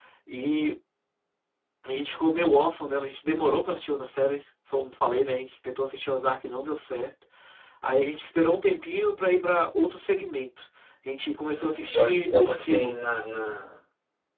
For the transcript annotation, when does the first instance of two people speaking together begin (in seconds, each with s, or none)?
11.5 s